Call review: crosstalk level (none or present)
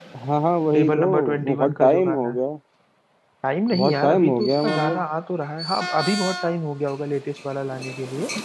present